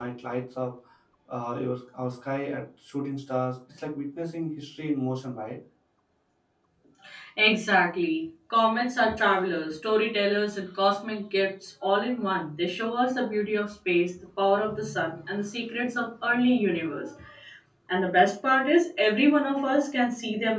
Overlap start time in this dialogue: none

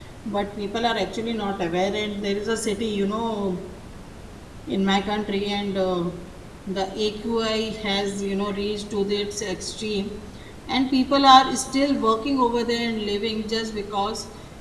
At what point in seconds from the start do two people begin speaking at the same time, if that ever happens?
none

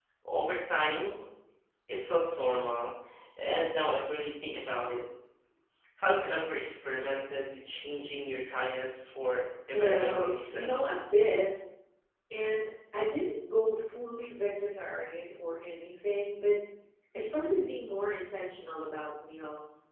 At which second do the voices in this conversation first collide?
9.7 s

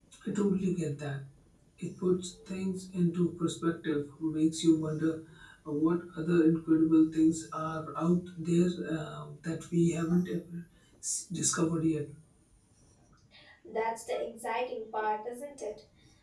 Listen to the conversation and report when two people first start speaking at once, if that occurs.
none

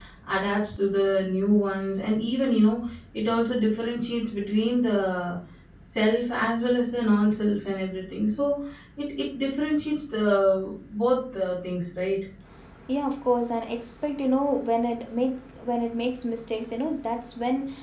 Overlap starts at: none

